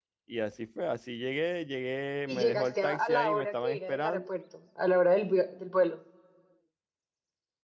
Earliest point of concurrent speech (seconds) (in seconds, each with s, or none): 2.3 s